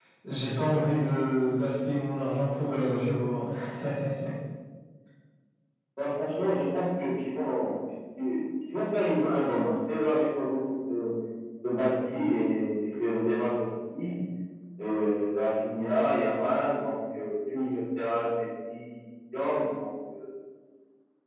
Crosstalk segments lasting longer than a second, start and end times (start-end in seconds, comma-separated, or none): none